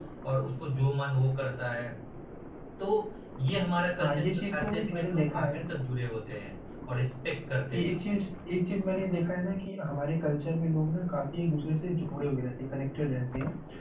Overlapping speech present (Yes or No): Yes